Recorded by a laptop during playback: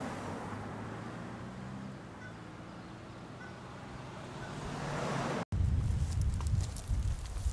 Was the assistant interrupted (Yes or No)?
No